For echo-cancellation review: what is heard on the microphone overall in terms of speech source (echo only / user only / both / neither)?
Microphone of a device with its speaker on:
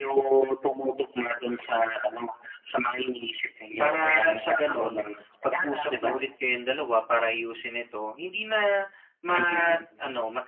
both